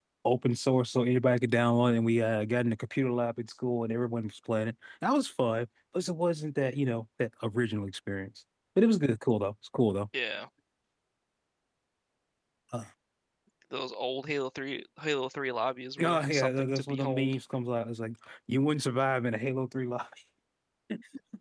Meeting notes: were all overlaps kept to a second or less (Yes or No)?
No